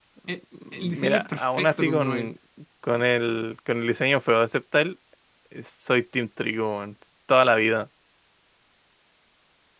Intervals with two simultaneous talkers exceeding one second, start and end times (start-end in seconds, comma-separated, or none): 0.7-2.3